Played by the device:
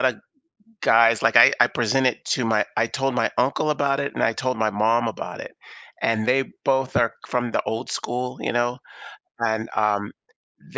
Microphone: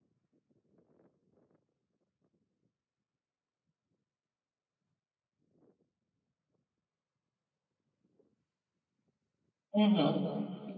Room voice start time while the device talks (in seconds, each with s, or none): 9.8 s